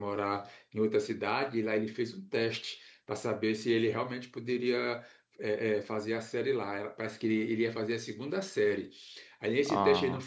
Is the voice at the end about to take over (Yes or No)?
No